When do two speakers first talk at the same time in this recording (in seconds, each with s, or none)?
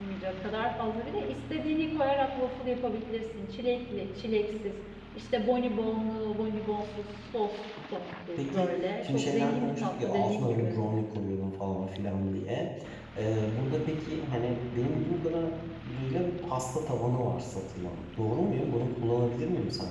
8.4 s